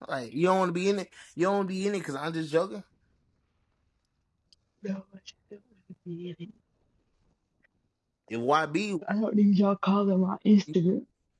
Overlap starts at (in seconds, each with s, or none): none